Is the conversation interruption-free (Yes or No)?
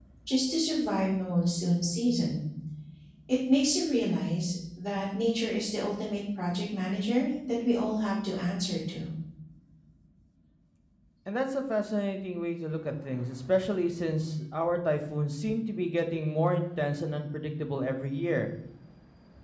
Yes